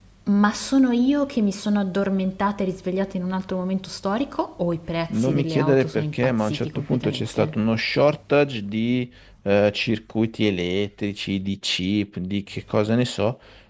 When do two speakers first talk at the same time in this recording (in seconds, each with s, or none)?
5.1 s